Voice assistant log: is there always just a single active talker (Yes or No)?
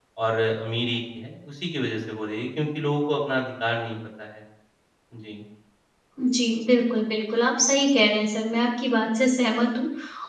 Yes